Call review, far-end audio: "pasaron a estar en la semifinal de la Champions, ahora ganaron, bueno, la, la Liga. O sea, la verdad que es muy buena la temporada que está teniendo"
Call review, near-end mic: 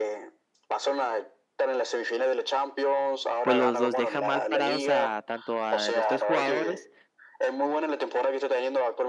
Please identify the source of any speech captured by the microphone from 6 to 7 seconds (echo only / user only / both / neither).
both